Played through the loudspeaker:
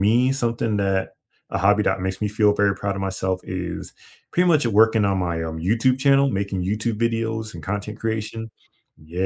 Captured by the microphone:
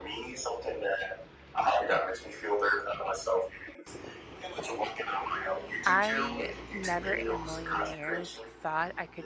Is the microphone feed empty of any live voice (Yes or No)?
No